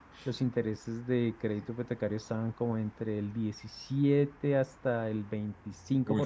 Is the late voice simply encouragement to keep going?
No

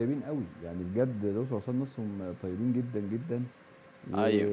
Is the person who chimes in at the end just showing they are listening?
Yes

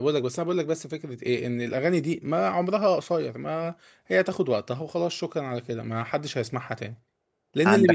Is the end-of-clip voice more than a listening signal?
No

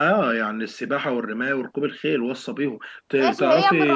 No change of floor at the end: No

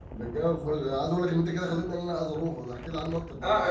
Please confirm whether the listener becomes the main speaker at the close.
Yes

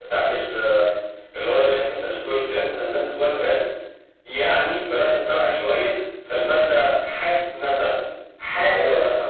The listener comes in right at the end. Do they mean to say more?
Yes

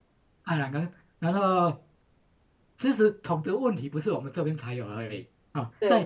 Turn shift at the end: No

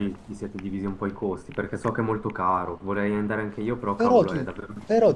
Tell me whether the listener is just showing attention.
No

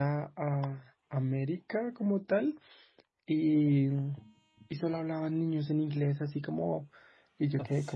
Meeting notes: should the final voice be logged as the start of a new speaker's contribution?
No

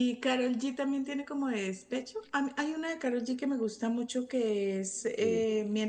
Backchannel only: Yes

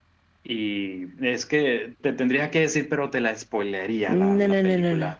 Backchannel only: No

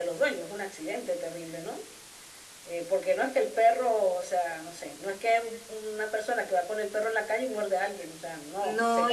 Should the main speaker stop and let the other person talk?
Yes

